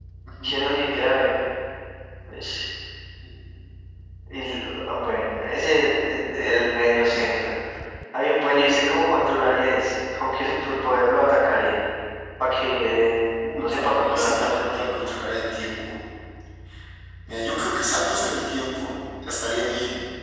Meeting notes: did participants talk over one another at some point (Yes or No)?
Yes